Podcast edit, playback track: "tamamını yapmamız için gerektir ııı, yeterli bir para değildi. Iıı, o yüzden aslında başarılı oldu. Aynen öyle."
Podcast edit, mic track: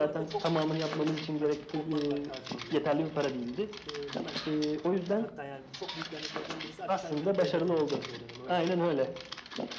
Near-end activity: present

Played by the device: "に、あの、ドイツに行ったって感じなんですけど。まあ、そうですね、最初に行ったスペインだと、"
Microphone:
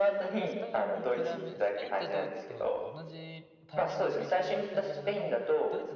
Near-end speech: present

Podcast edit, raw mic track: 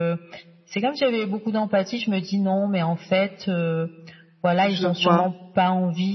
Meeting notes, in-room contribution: present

